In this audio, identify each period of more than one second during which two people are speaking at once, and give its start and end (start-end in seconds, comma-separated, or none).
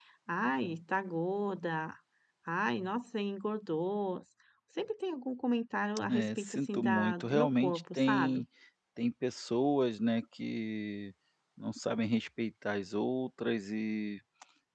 6.1-8.4